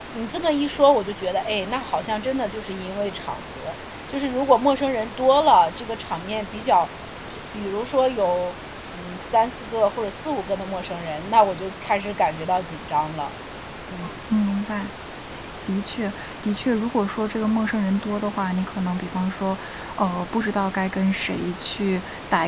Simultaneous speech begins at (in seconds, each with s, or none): none